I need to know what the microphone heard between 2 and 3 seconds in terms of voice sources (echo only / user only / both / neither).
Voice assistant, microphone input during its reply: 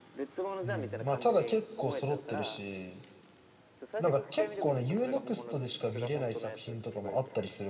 both